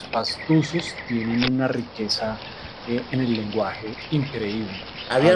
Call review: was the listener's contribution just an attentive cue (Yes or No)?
No